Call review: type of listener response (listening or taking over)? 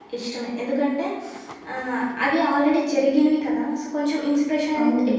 listening